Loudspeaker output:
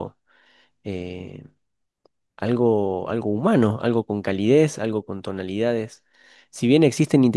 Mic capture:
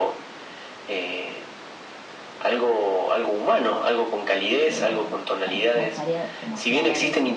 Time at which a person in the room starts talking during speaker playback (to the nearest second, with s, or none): 5 s